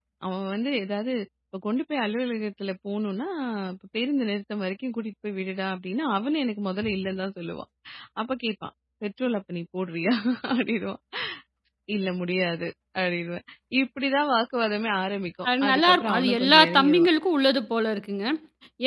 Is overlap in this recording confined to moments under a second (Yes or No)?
No